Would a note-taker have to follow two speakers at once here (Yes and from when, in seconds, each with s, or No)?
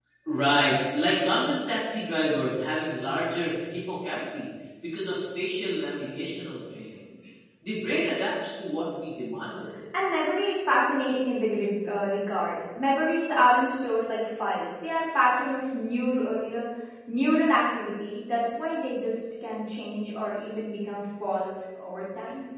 No